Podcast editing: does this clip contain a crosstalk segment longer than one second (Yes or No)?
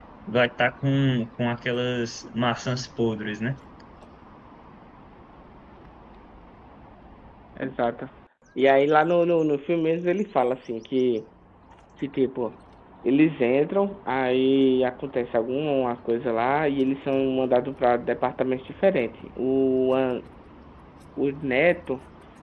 No